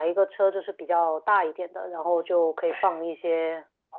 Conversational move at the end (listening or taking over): listening